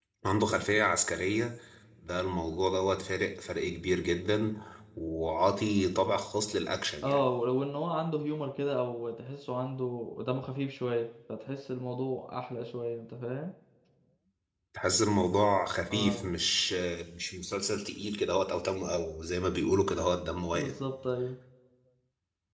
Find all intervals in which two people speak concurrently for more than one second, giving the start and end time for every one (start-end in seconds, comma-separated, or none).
none